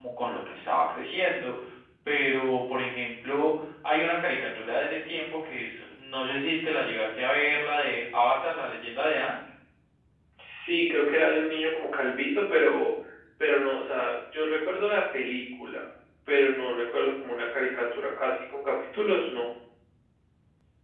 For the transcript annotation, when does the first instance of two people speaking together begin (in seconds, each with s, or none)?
none